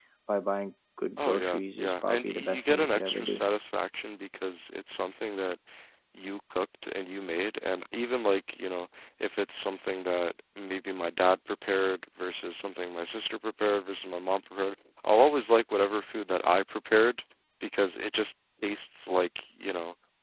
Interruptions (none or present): present